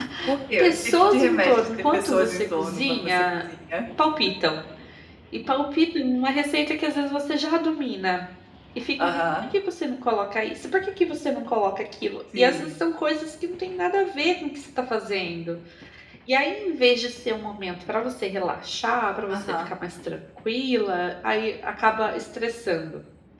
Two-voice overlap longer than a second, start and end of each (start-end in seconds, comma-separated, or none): 0.6-3.2